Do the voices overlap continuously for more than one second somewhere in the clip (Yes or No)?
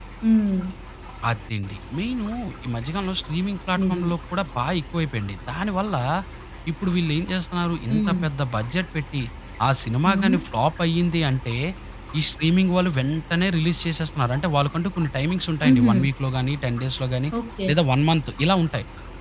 No